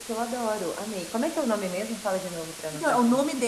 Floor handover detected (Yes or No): Yes